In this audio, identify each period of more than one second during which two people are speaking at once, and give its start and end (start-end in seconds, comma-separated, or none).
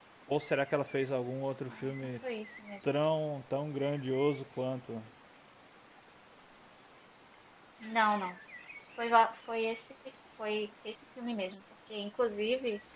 none